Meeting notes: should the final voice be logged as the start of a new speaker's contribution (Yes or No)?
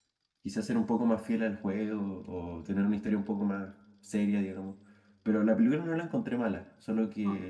No